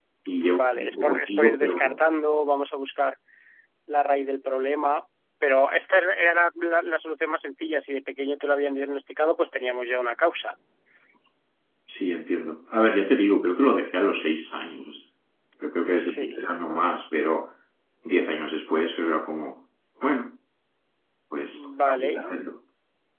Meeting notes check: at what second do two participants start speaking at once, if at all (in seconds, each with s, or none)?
0.6 s